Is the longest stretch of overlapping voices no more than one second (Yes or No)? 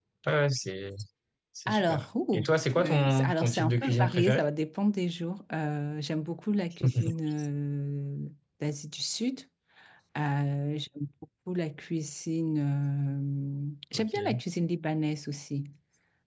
No